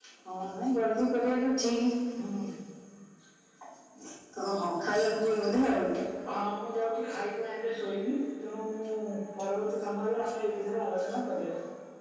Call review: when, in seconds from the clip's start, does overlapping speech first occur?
none

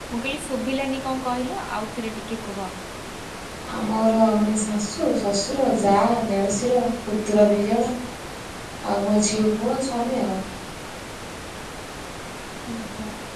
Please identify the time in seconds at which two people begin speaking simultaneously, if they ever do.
none

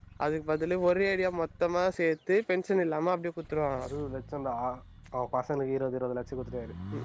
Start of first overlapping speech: none

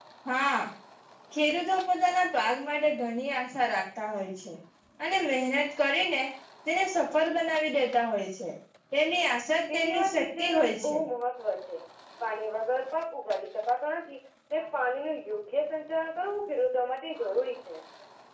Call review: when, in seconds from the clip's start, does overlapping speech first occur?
9.7 s

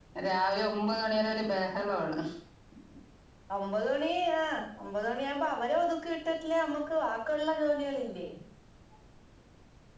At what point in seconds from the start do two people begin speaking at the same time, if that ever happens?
none

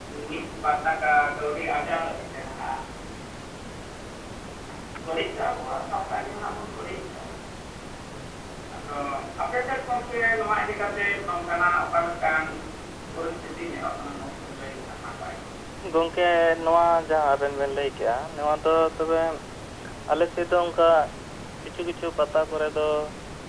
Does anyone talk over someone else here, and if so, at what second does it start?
none

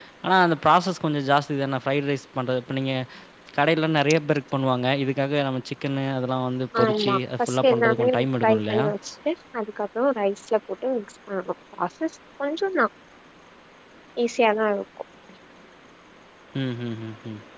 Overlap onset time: 6.7 s

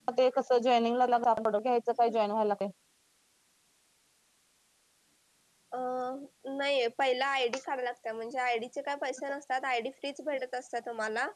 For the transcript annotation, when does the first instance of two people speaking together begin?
none

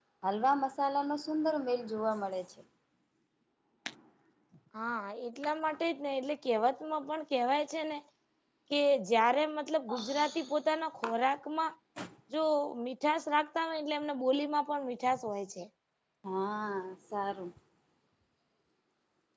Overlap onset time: none

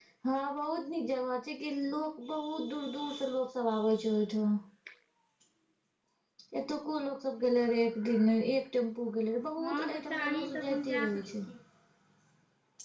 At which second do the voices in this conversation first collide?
9.6 s

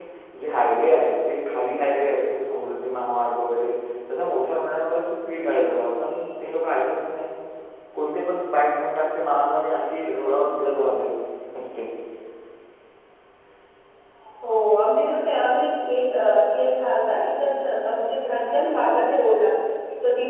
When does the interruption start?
none

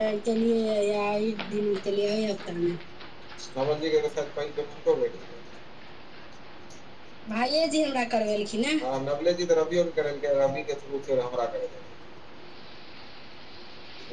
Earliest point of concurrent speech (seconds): none

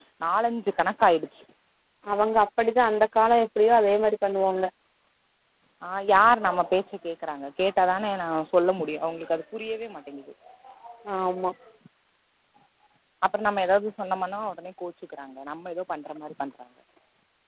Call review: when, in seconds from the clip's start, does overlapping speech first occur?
none

